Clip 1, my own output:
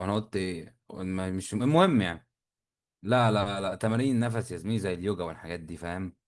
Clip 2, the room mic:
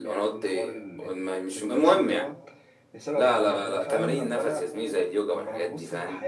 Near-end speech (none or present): present